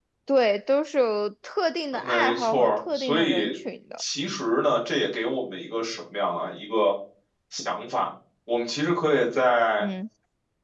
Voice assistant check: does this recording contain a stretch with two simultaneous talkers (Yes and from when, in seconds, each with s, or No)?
Yes, from 1.9 s